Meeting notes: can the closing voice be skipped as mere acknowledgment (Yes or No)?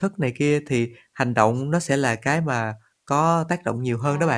No